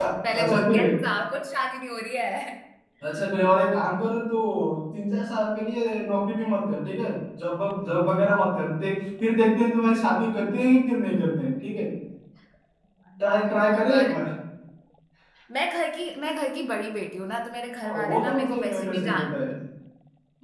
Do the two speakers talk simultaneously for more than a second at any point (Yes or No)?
Yes